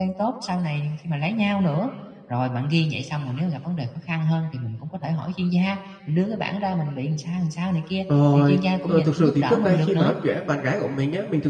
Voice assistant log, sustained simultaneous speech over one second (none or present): present